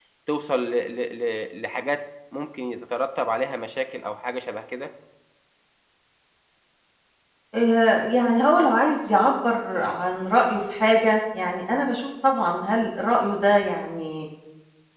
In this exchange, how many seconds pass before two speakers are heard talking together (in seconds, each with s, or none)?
none